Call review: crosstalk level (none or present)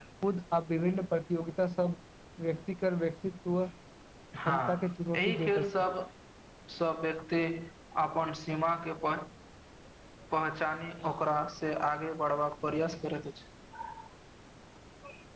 present